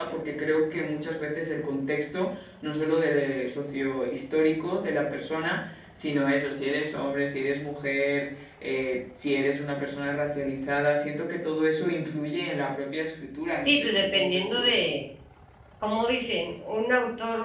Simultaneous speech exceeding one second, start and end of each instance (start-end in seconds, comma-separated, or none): 13.6-14.9